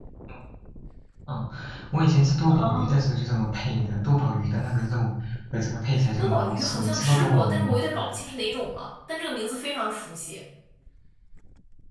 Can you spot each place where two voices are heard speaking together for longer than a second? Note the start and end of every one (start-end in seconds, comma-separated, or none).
6.2-7.8